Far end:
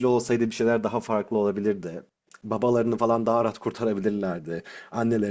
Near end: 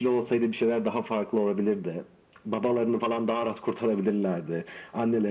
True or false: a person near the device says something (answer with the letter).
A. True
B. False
B